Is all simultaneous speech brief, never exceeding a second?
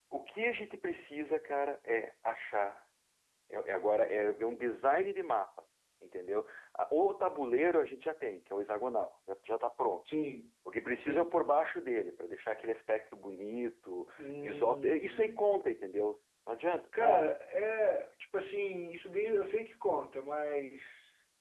No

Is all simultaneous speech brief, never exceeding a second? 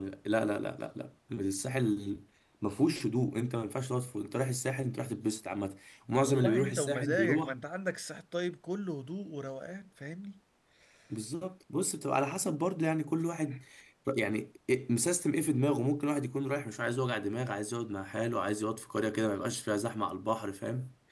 No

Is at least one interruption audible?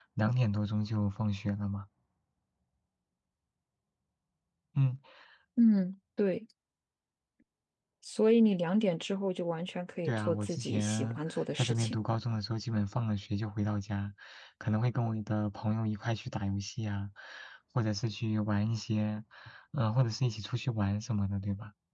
Yes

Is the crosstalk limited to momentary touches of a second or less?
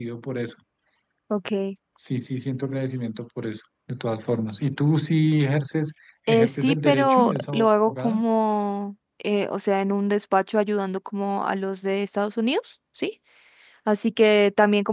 No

